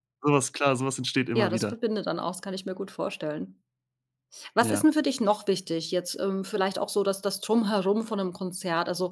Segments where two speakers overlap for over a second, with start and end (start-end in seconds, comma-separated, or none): none